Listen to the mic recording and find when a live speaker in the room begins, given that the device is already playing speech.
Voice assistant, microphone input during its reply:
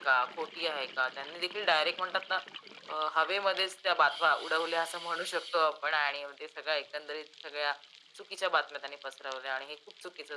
none

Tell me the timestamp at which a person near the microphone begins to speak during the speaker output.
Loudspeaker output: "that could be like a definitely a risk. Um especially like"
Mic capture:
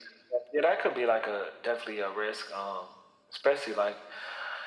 none

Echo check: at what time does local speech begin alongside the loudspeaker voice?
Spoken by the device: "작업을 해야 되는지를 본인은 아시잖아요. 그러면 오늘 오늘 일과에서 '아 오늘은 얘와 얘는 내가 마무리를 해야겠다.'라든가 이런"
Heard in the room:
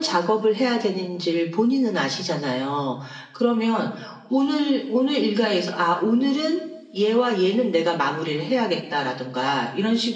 none

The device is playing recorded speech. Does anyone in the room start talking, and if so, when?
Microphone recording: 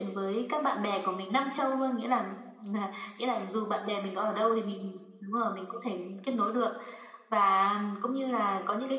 none

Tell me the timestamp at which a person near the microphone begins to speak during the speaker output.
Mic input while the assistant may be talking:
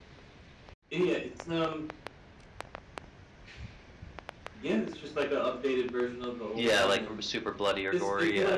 6.5 s

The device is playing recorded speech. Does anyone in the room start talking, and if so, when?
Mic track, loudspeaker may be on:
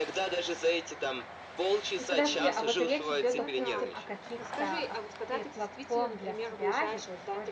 2.0 s

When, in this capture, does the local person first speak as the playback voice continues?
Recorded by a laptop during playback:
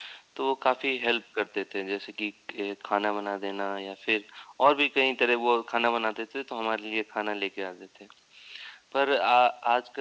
none

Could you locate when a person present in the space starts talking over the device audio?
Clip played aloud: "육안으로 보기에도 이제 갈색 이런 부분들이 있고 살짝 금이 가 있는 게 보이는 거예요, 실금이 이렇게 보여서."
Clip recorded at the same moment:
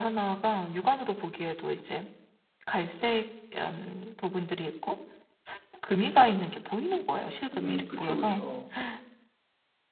7.6 s

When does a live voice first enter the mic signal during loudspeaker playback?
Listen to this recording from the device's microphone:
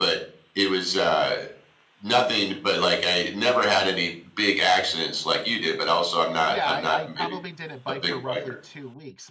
6.5 s

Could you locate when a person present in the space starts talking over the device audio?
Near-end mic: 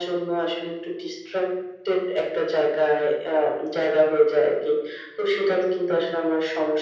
none

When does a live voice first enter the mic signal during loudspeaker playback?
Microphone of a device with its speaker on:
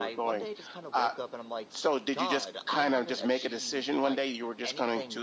none

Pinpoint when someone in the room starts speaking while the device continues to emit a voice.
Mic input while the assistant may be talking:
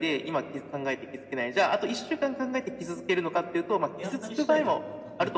4.0 s

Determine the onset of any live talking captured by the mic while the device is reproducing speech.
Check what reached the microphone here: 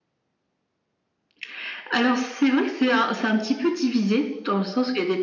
none

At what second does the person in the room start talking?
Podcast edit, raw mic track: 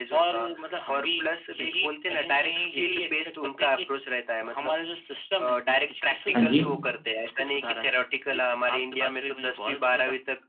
6.3 s

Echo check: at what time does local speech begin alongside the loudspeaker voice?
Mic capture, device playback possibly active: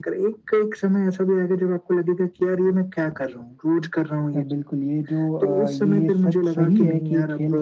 4.4 s

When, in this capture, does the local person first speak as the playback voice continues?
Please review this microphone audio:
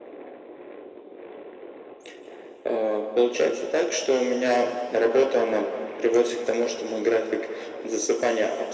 none

